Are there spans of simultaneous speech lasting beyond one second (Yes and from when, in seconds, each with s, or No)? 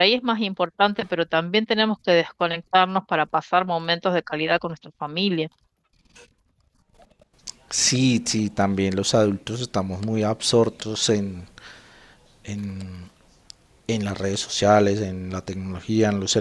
No